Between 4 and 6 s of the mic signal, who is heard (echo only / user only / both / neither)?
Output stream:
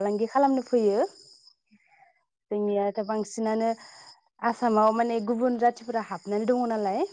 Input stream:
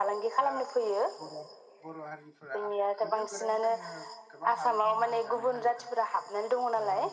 both